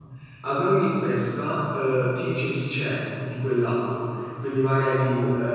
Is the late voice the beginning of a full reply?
No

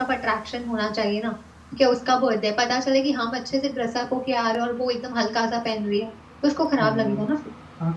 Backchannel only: No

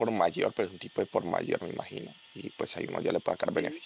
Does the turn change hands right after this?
Yes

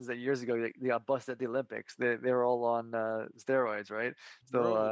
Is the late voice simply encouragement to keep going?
Yes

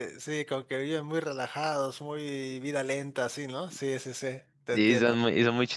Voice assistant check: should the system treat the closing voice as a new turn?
Yes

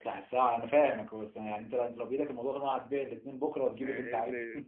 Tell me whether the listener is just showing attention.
No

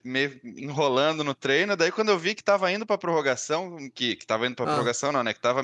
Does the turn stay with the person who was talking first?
Yes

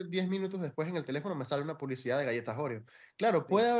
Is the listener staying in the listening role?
Yes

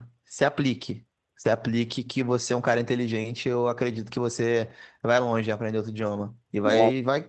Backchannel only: Yes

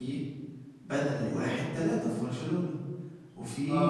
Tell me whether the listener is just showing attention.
No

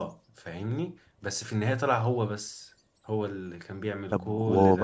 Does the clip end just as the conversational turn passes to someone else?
Yes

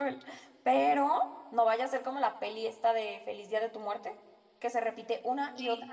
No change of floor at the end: Yes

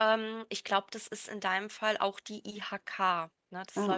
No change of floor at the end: Yes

